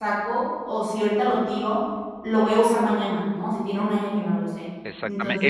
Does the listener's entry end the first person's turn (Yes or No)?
Yes